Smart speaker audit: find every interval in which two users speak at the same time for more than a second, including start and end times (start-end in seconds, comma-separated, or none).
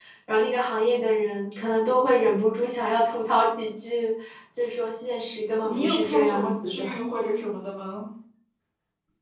5.6-6.8